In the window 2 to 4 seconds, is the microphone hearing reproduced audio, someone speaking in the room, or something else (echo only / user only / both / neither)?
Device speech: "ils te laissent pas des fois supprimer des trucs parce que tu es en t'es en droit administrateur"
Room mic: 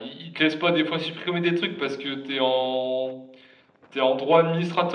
echo only